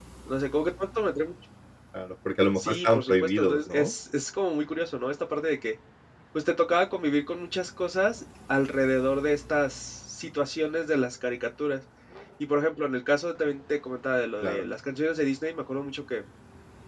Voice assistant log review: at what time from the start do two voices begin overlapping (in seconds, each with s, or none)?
2.5 s